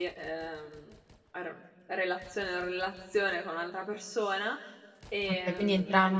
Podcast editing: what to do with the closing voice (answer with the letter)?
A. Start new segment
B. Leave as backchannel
A